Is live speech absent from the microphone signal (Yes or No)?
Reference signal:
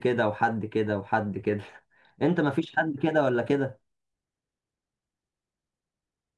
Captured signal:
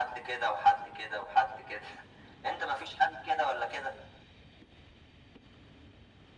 Yes